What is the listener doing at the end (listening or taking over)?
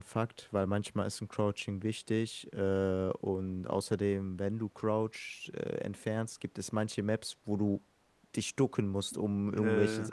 listening